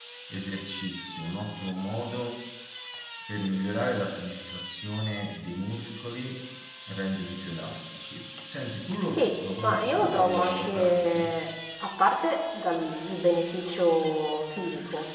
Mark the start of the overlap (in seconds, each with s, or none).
9.1 s